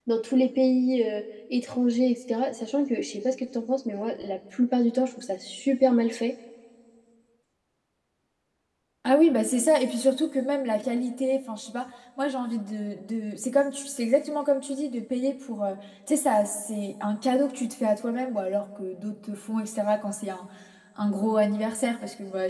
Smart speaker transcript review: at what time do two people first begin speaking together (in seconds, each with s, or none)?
none